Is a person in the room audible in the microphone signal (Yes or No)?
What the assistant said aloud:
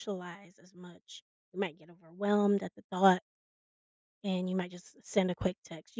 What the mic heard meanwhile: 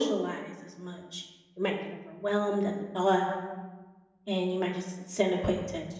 No